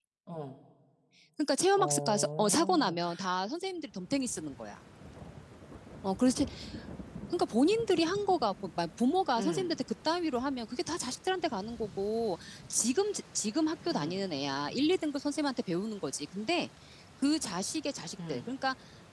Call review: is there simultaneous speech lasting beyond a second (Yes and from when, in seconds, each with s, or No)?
Yes, from 1.7 s